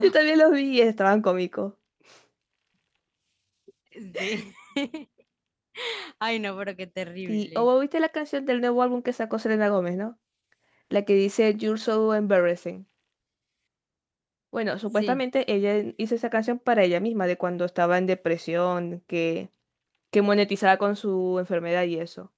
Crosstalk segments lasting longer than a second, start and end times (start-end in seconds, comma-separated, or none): none